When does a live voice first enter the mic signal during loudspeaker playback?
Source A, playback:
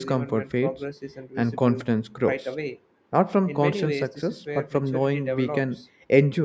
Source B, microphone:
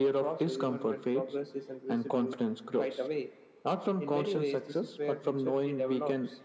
none

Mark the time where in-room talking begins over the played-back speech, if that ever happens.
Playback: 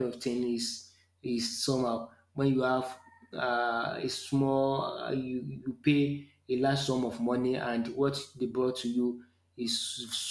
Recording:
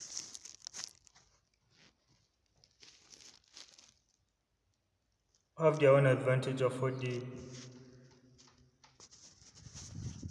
5.6 s

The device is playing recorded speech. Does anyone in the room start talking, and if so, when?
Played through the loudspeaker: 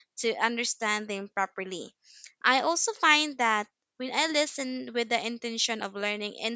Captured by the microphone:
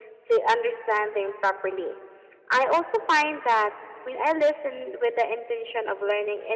none

